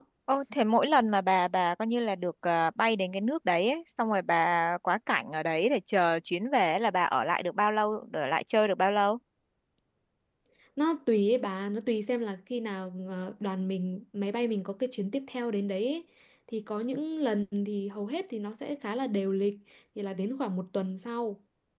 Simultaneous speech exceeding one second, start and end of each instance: none

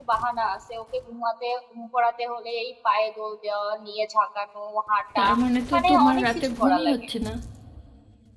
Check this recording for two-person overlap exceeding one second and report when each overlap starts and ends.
5.7-7.0

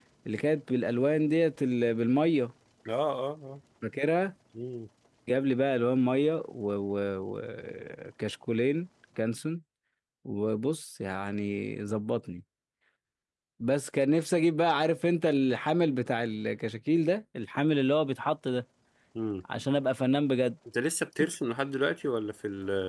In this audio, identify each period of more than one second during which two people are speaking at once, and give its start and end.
none

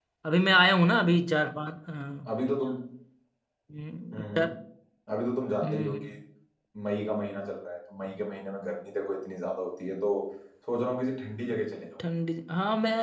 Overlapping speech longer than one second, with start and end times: none

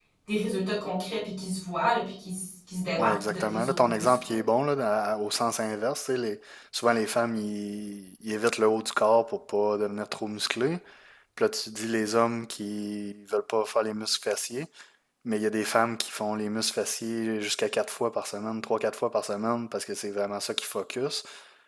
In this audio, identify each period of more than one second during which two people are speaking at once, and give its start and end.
3.0-4.4

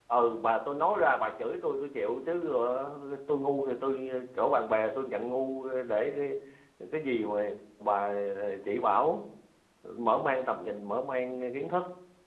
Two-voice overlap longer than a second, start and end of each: none

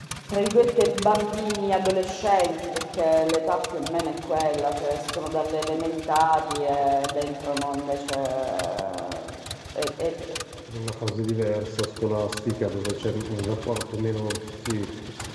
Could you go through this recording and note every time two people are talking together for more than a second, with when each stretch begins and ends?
none

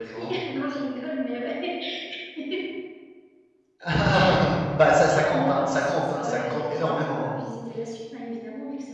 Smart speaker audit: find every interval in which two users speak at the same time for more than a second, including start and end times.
5.3-7.3

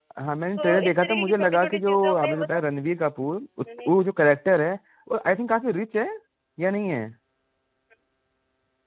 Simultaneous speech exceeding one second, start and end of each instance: 0.6-2.6

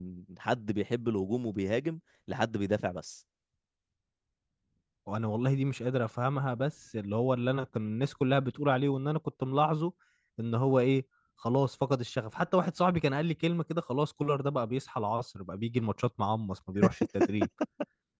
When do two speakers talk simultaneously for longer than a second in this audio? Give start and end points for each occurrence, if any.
none

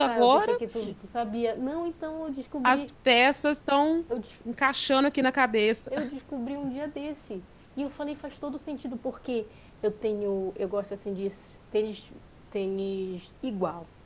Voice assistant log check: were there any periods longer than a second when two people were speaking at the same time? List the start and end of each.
none

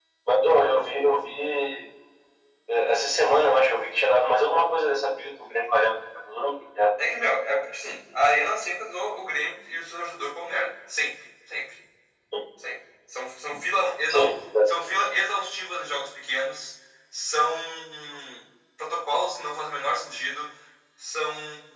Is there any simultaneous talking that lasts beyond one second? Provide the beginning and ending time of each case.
none

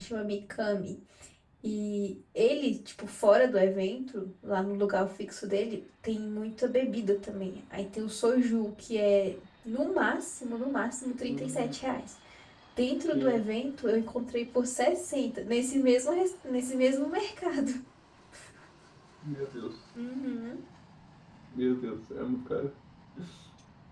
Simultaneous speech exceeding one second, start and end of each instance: none

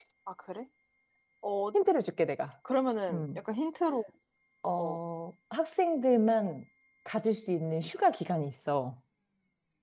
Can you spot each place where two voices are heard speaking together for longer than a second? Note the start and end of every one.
none

